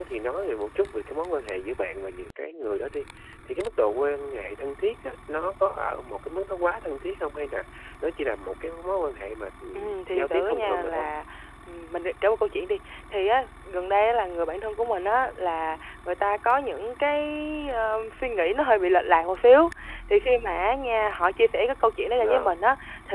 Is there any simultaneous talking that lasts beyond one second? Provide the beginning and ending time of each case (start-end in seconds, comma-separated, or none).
9.7-11.1